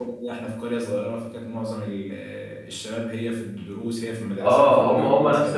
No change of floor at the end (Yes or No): No